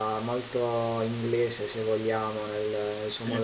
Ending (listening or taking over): listening